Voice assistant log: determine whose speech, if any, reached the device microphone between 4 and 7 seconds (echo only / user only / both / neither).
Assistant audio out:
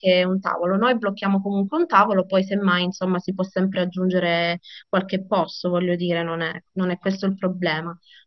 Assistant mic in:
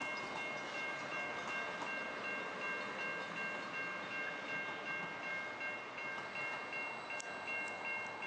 neither